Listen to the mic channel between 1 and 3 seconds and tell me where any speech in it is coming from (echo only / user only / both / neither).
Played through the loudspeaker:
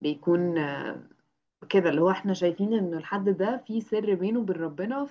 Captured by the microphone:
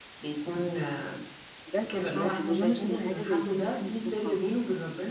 both